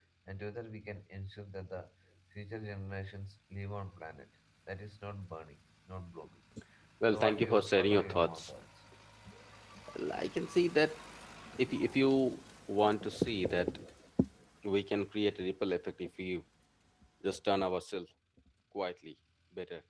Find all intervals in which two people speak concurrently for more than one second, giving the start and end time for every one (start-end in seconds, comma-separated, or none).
7.1-8.5